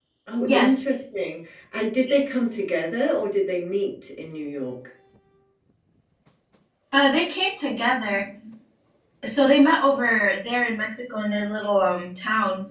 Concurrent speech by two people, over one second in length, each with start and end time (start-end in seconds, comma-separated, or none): none